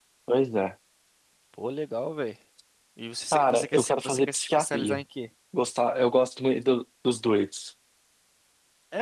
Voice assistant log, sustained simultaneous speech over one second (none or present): present